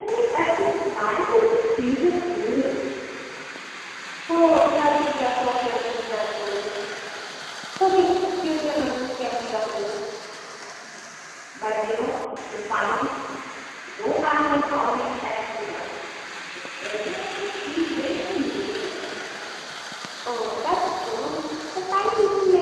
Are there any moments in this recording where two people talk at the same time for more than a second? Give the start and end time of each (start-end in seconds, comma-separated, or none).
none